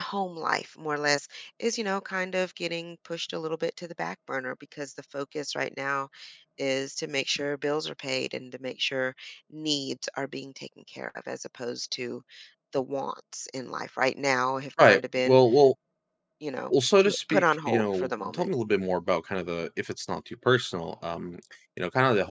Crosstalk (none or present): present